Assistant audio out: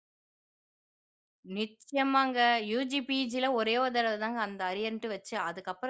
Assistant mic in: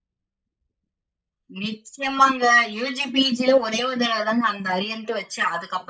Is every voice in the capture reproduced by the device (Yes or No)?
Yes